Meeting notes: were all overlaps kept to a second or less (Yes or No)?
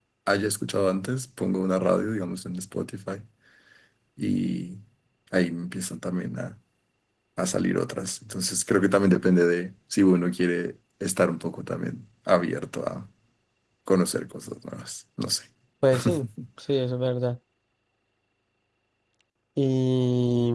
Yes